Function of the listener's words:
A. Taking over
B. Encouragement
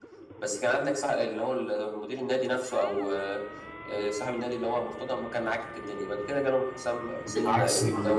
A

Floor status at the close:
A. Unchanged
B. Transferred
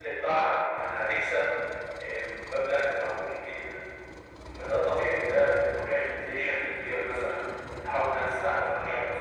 B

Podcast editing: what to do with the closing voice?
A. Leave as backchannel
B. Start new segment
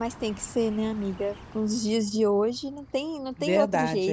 B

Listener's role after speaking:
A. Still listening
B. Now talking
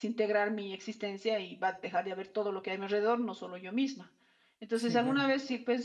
A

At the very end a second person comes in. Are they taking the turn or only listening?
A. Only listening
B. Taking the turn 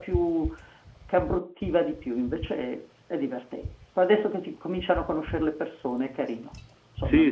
B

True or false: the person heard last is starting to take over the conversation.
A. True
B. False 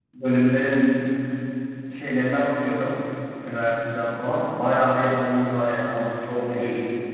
A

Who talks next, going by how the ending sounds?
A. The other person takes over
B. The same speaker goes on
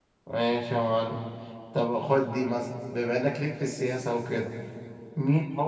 B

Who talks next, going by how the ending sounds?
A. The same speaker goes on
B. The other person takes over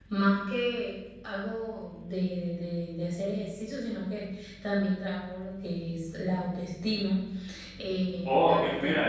B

